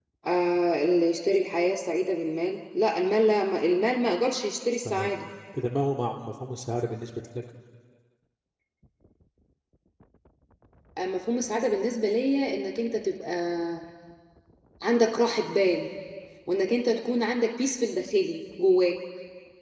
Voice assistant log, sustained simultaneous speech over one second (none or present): none